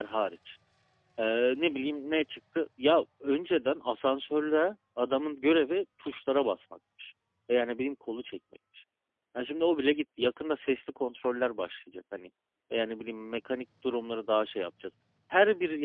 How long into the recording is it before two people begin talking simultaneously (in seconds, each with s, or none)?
none